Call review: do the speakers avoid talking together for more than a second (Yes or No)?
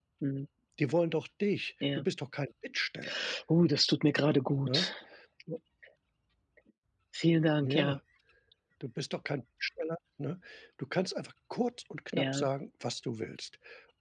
Yes